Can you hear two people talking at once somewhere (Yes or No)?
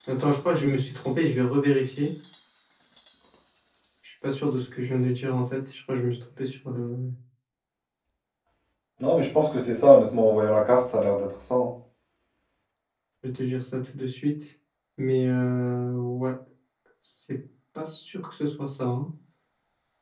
No